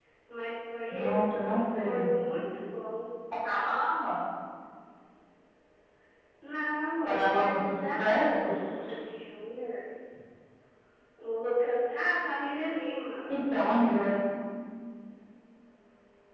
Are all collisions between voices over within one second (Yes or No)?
No